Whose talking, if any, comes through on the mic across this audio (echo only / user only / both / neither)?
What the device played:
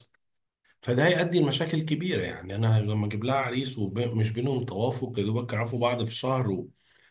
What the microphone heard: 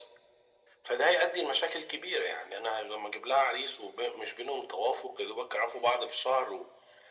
echo only